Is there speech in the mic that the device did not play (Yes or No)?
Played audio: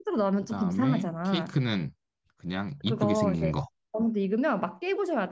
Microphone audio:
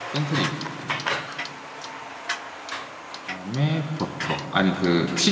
Yes